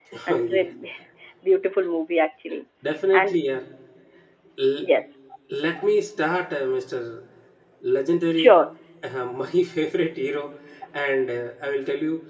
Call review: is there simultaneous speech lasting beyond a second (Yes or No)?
No